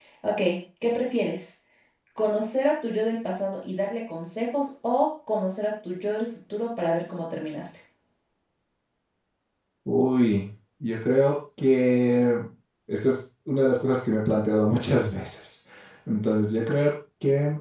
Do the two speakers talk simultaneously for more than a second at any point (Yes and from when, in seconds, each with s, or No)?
No